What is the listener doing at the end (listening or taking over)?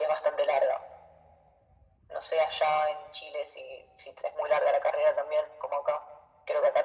listening